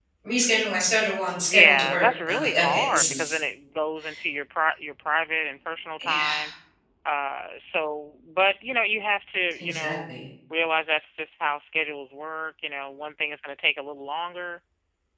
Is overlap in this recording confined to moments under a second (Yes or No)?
No